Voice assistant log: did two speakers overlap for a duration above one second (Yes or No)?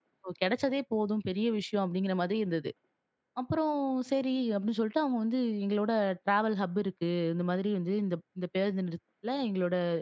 No